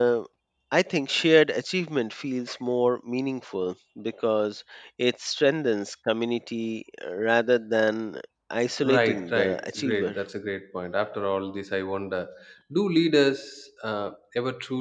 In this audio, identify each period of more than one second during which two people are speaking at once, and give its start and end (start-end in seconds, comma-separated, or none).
8.8-10.2